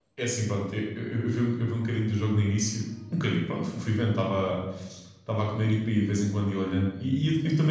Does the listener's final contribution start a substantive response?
No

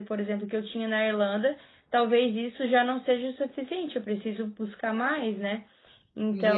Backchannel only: No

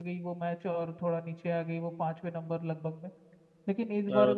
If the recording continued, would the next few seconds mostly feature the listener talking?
No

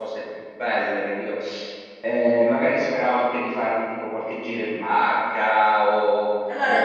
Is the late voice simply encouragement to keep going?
No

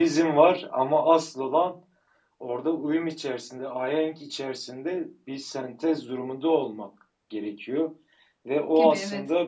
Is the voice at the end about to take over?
No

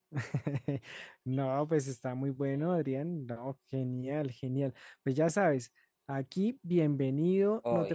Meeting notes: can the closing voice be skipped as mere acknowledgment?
Yes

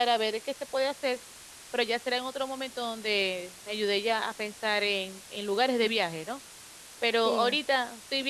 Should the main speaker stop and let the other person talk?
No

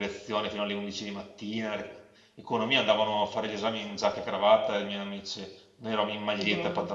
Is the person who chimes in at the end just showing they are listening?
No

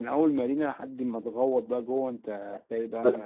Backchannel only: No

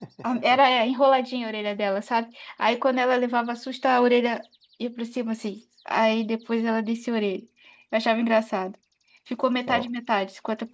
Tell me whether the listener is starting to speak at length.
No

